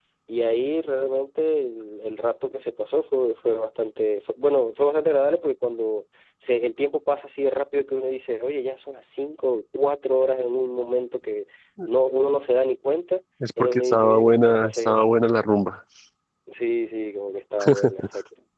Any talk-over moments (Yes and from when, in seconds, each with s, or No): Yes, from 13.6 s